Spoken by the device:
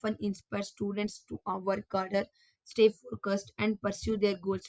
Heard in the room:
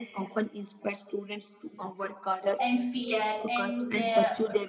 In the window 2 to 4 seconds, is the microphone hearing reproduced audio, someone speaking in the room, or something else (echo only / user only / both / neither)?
both